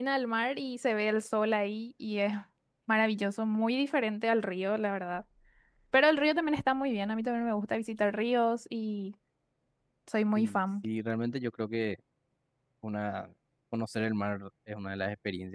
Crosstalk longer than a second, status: none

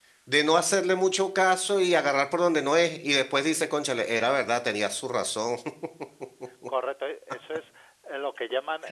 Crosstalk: none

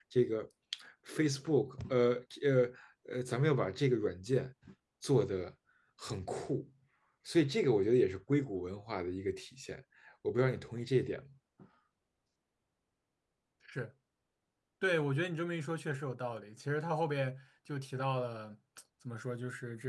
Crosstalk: none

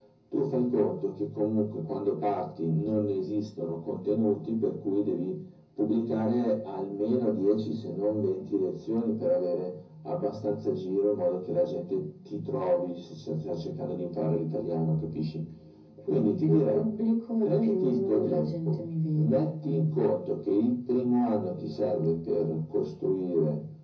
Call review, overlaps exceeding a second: present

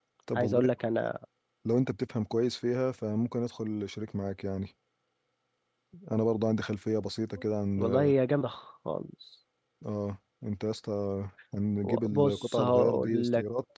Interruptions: present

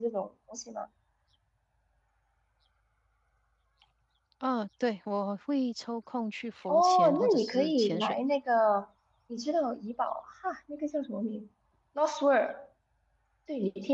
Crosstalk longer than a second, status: present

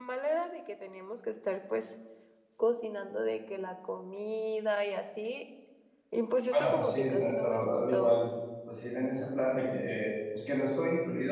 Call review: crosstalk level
present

